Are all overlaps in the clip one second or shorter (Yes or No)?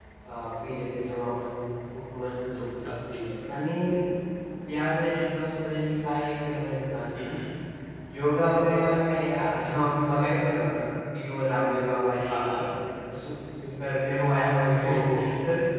Yes